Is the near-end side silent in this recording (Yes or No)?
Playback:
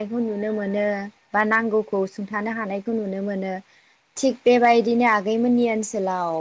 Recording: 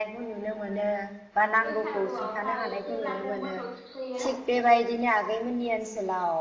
No